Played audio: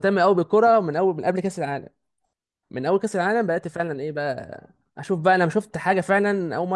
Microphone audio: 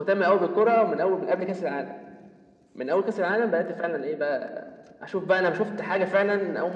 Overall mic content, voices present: echo only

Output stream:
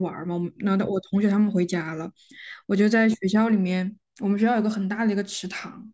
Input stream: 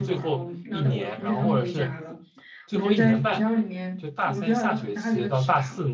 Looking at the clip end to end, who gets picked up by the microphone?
both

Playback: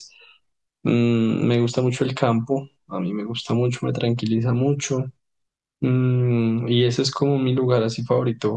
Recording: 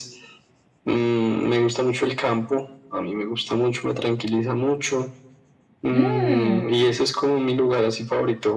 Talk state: both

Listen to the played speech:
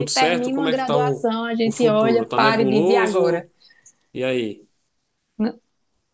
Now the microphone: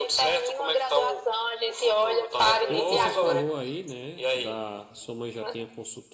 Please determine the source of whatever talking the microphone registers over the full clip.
both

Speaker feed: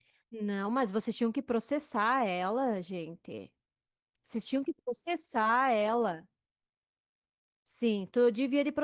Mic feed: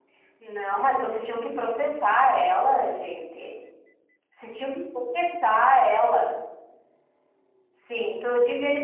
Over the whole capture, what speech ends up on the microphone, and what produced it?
echo only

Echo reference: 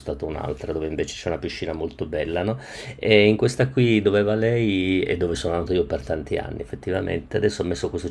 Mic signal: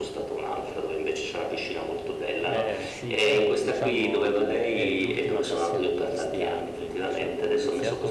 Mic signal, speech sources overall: both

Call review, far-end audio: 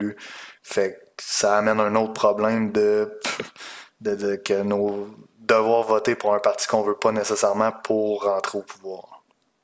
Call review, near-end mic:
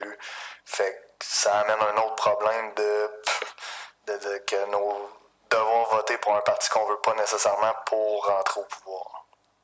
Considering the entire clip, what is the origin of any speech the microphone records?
echo only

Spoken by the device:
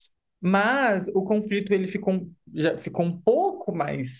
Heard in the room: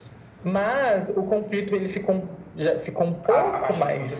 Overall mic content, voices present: both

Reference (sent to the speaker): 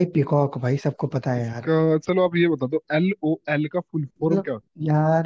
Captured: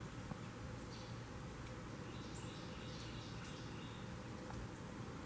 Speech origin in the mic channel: neither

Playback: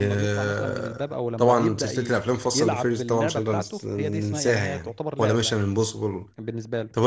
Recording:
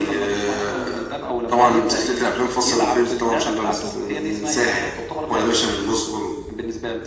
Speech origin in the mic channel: echo only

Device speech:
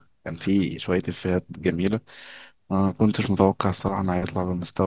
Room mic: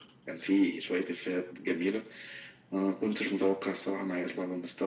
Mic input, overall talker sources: echo only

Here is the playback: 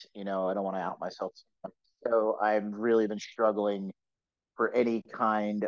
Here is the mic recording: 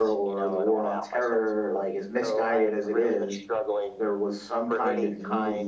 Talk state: both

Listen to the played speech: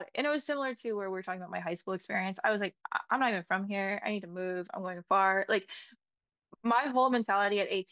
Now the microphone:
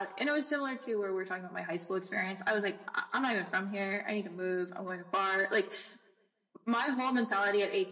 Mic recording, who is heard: echo only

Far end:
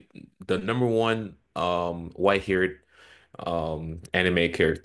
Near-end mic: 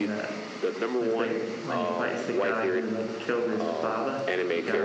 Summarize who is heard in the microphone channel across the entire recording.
both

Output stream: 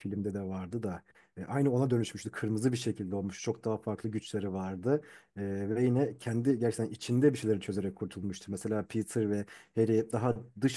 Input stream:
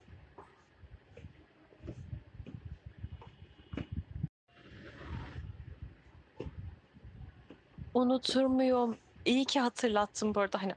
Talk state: user only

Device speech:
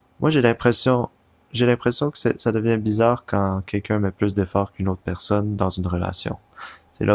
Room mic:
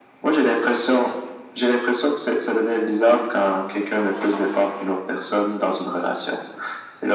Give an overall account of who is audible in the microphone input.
echo only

